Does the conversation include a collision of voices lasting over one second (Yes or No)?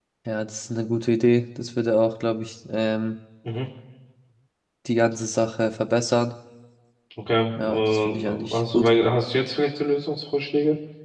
Yes